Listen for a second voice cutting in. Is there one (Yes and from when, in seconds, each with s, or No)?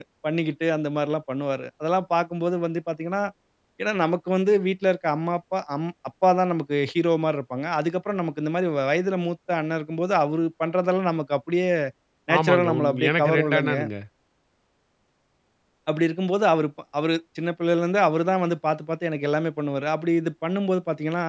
Yes, from 12.4 s